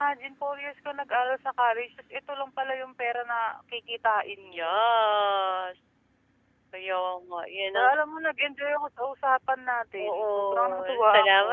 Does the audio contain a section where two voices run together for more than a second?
Yes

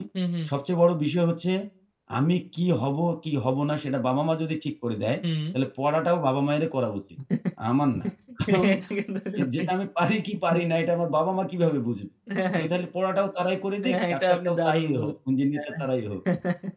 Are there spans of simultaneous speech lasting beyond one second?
Yes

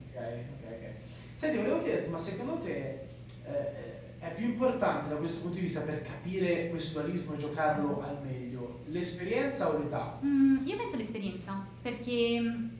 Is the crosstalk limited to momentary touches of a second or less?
Yes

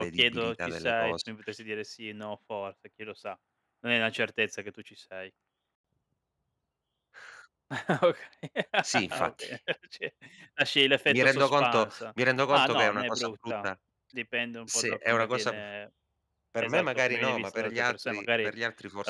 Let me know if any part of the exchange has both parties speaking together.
Yes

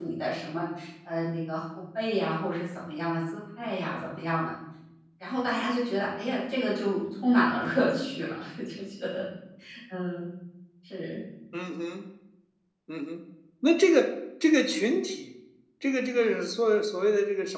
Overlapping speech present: No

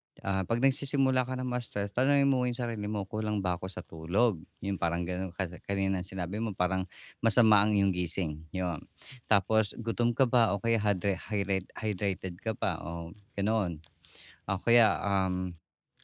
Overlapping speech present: No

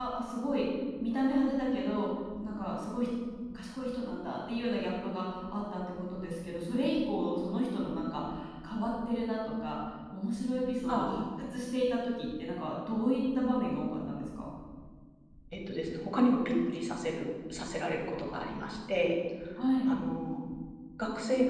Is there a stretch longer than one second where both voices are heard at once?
No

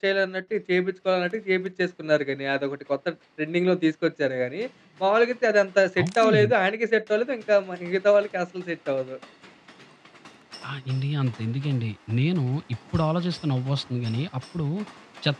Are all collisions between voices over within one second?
Yes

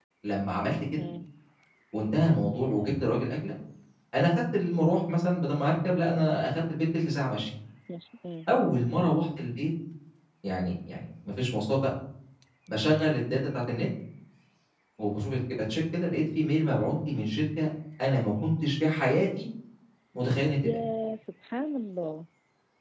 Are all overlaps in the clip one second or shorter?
Yes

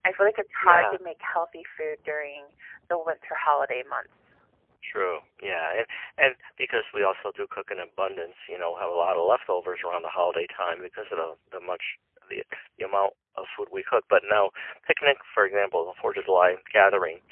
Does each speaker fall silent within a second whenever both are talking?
Yes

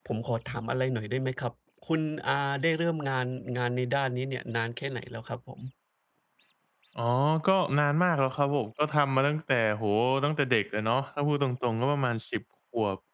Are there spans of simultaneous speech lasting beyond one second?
No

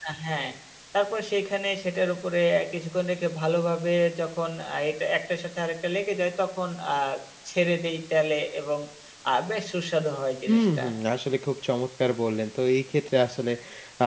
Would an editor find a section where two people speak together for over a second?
No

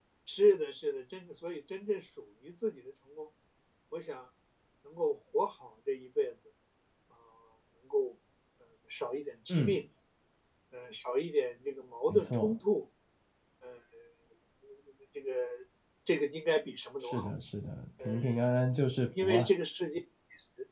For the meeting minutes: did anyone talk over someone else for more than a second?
No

